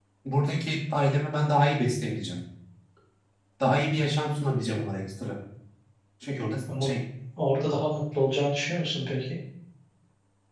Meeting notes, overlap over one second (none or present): none